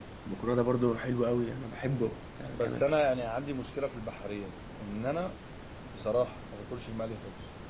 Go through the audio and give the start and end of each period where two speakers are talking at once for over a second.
none

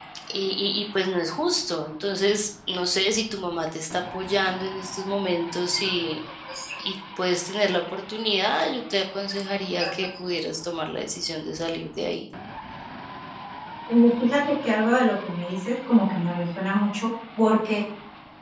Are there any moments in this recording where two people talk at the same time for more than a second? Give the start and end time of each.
none

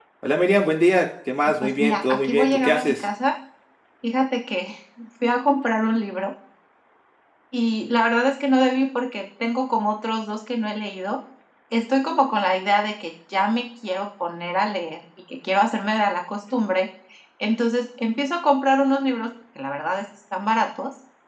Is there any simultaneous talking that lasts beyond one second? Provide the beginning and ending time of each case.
1.6-3.0

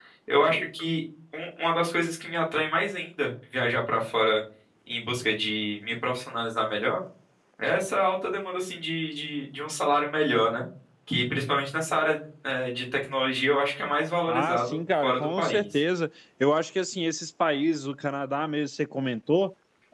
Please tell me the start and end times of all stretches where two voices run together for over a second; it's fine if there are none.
14.3-15.7

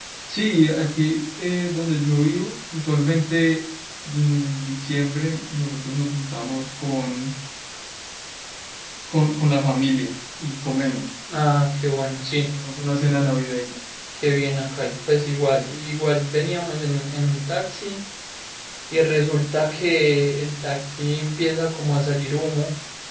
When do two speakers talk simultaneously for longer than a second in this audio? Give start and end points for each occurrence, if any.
none

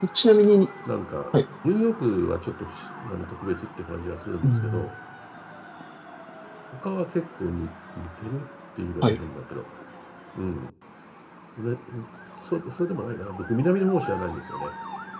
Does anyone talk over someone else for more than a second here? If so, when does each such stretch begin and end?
none

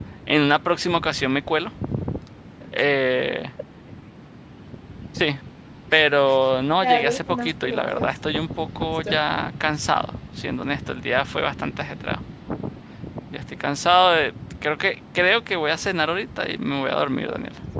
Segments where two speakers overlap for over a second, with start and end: 6.8-8.1

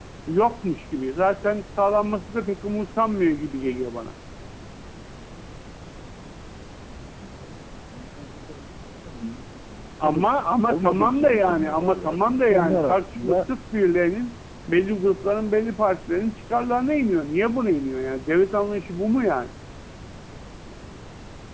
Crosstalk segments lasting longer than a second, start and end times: 10.0-13.4

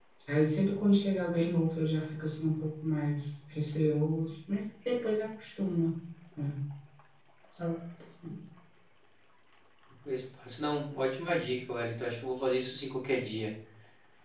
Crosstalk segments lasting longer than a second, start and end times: none

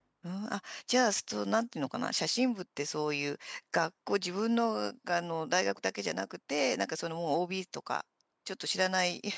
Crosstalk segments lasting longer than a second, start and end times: none

